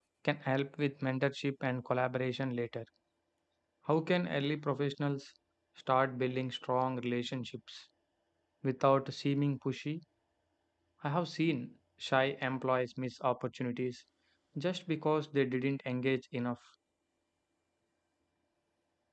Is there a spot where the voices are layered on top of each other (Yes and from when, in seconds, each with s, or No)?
No